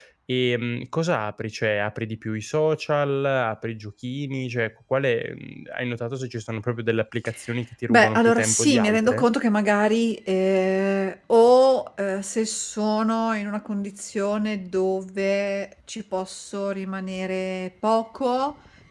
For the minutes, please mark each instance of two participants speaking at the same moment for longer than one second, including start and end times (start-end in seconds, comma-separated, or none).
7.9-9.2